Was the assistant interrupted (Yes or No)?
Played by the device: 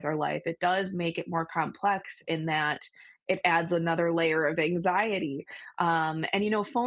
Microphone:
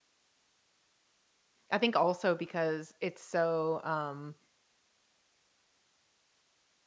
Yes